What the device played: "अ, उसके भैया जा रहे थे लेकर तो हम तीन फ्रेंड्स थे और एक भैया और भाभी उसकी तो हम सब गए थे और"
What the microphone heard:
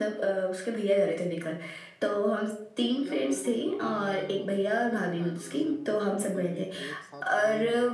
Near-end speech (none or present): present